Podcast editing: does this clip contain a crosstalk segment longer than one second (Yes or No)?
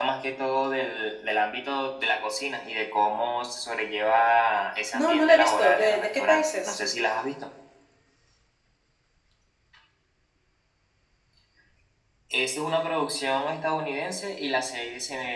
Yes